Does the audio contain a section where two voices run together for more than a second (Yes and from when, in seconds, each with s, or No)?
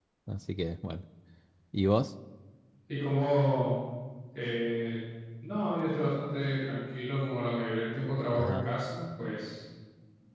No